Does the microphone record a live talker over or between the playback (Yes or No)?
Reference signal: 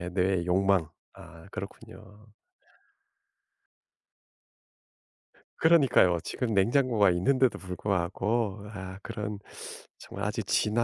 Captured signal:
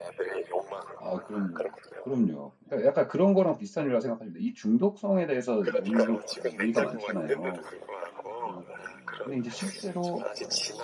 Yes